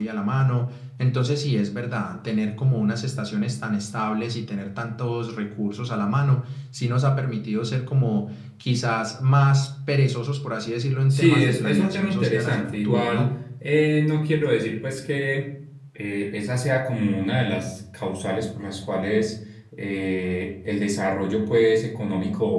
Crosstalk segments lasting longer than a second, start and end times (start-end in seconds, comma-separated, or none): 11.1-13.3